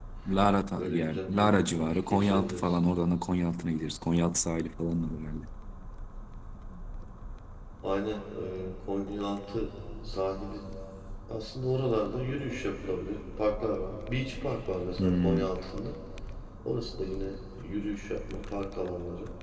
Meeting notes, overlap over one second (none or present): present